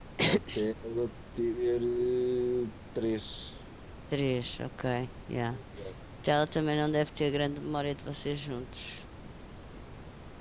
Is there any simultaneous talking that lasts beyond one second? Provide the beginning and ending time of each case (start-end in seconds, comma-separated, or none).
none